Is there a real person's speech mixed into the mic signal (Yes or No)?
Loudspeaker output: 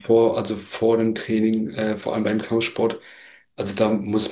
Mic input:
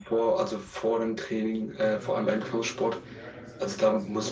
Yes